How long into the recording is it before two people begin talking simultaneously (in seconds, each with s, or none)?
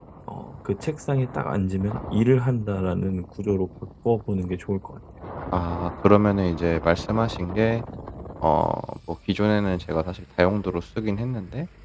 none